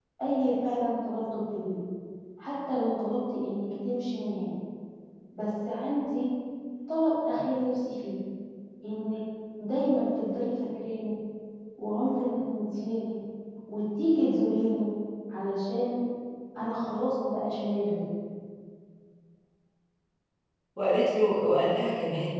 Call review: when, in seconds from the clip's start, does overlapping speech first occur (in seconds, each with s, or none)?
none